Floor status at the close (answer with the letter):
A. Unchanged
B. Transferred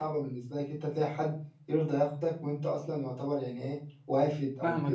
B